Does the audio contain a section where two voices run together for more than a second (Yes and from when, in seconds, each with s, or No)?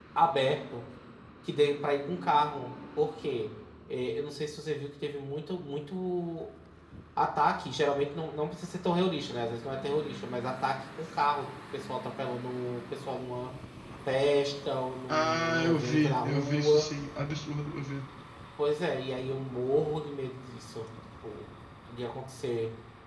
Yes, from 15.1 s